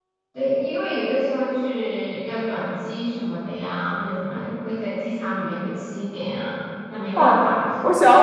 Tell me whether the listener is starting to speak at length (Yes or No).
Yes